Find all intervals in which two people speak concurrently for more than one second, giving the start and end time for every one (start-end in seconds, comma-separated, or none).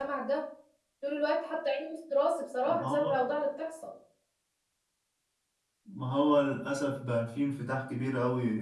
none